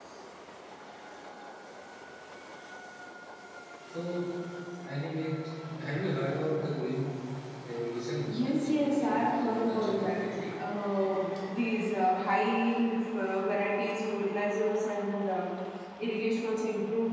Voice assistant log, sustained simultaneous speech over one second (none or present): present